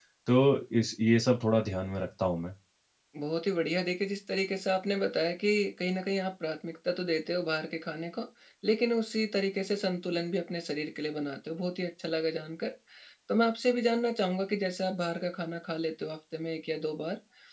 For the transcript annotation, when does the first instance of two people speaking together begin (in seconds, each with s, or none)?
none